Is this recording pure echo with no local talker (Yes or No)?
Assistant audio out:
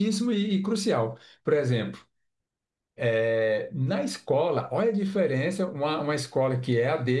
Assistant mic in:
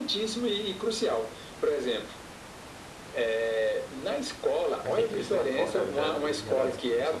No